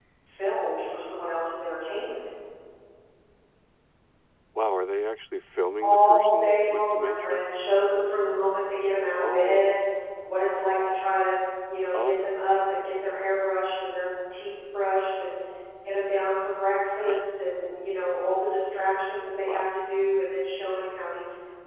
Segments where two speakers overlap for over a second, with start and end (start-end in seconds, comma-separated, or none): 5.8-7.4